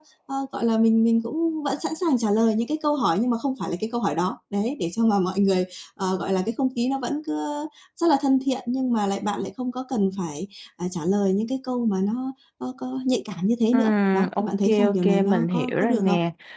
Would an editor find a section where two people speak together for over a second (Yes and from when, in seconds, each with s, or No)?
Yes, from 13.7 s